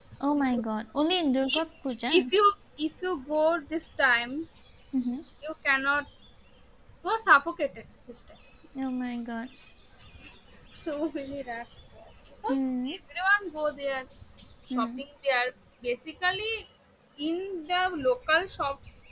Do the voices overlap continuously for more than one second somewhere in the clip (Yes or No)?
No